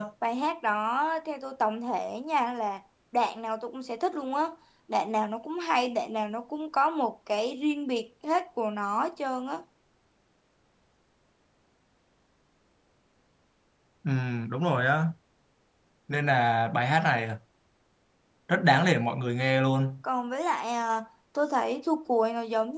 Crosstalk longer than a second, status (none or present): none